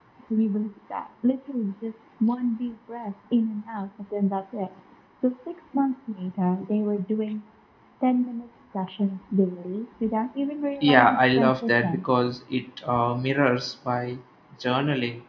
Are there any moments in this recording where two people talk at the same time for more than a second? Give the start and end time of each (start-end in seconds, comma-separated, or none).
10.8-12.0